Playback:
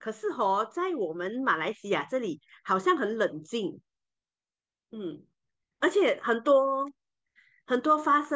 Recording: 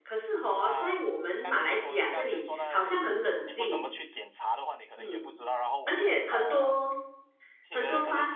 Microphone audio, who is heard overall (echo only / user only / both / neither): both